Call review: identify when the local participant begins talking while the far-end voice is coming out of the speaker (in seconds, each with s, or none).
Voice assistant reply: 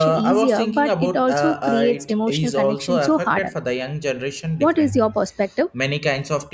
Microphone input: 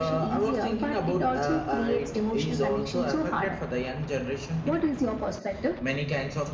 none